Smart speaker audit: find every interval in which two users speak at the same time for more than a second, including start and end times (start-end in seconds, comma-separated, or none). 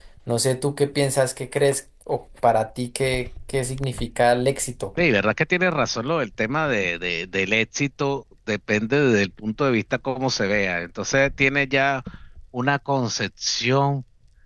none